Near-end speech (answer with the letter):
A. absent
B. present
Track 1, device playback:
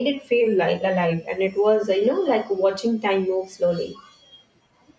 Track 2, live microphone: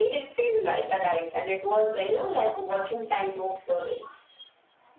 A